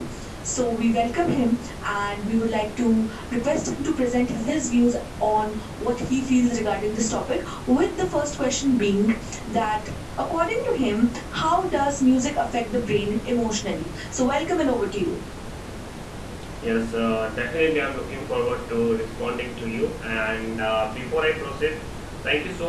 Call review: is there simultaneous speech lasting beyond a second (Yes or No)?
No